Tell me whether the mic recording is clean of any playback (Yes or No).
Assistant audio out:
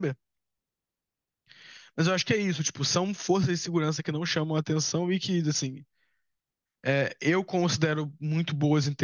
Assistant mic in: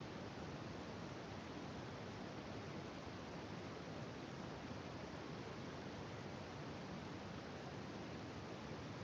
Yes